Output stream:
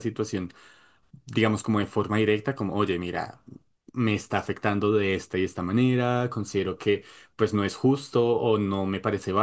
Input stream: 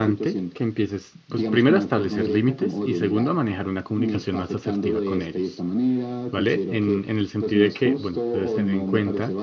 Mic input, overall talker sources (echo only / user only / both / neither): both